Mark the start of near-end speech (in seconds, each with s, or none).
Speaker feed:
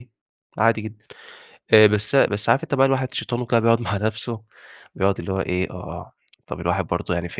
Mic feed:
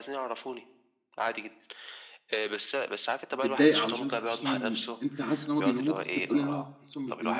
3.3 s